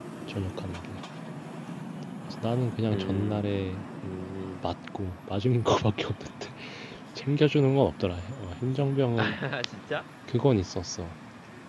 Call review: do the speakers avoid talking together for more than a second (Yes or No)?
Yes